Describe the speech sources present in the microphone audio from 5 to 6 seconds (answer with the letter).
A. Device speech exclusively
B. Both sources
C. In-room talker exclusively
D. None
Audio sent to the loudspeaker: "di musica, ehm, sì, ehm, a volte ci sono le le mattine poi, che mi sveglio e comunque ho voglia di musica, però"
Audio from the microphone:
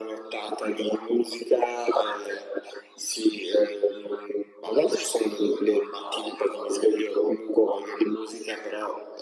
A